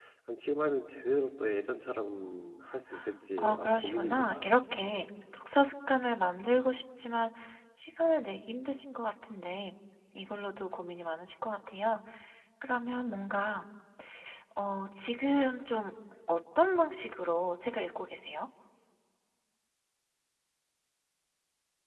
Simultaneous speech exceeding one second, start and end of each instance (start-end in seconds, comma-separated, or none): 3.4-4.6